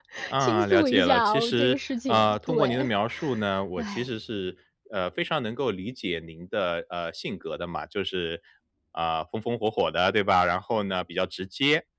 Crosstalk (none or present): present